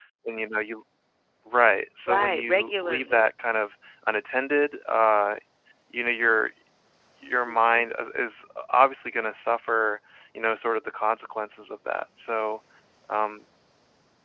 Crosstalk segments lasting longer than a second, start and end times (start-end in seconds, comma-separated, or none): 2.1-3.3